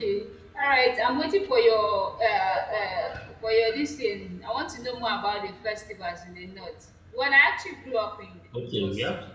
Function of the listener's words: taking over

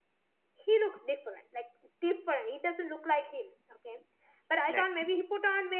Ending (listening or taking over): listening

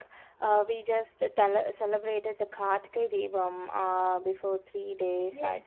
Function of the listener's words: taking over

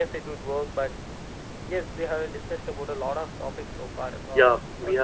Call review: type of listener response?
taking over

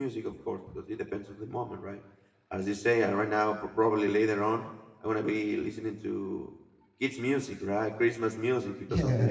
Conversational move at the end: listening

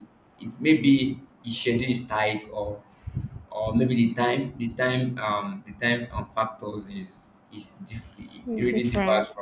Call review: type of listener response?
listening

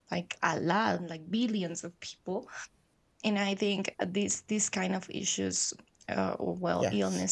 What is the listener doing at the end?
listening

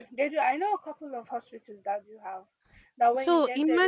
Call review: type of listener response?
listening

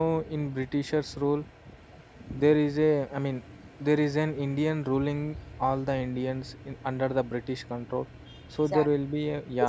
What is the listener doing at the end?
listening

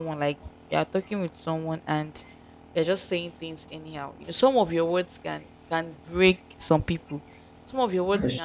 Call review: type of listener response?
listening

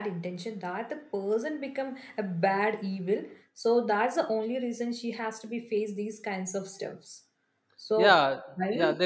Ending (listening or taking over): taking over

